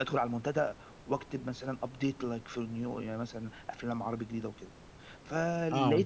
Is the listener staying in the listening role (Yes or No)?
Yes